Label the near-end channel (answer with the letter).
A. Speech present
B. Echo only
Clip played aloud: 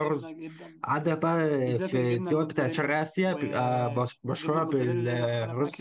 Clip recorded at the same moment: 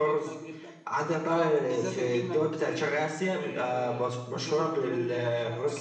A